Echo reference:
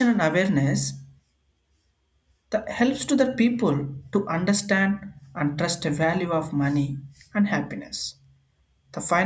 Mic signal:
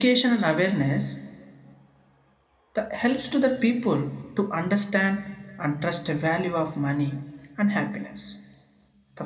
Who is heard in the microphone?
echo only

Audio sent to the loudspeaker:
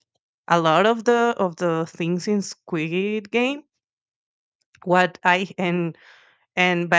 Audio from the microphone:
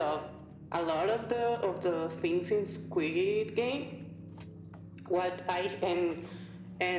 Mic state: echo only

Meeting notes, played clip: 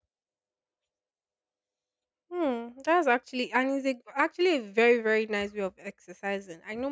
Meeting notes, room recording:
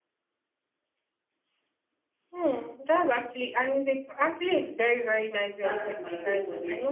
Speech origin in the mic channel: both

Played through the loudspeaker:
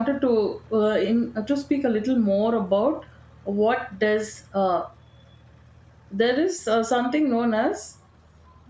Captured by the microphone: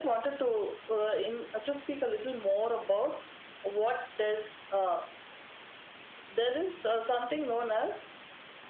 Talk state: echo only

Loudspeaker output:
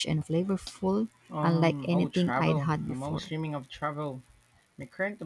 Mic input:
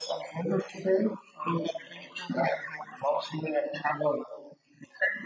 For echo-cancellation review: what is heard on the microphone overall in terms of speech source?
echo only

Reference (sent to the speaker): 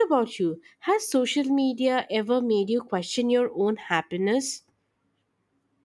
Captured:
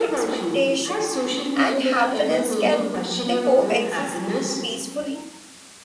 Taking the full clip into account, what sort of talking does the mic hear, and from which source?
both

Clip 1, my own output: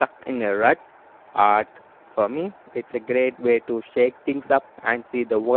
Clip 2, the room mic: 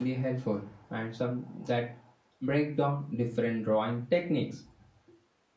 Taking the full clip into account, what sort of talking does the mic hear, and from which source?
user only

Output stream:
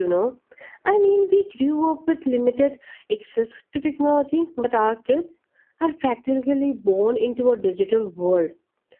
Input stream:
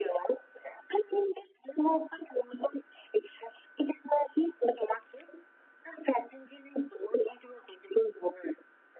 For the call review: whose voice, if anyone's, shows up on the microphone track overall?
echo only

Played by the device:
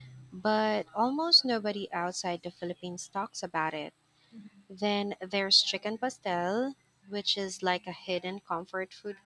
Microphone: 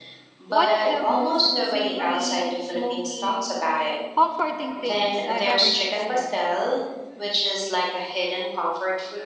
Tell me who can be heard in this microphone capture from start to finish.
both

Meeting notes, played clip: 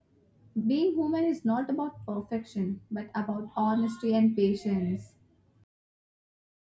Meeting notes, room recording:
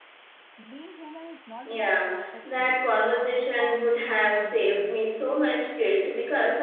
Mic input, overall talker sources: both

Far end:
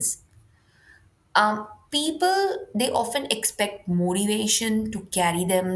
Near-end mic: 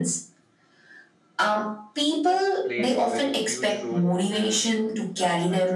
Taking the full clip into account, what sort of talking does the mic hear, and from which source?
both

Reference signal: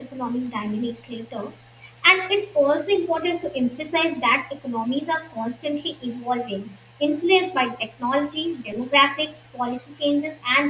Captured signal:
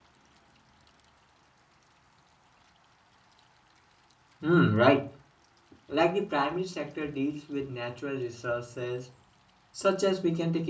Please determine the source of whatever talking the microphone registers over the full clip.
user only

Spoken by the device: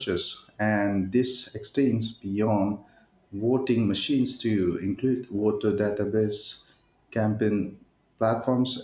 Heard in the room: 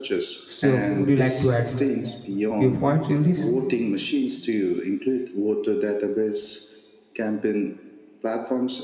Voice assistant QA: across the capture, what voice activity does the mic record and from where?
both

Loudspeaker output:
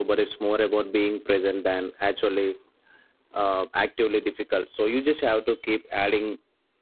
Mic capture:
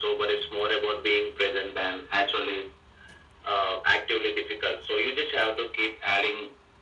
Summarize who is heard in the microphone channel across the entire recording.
echo only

